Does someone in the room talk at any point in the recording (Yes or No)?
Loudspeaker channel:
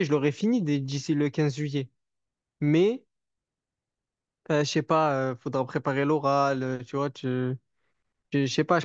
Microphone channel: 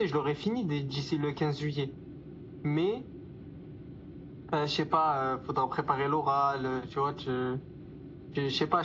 No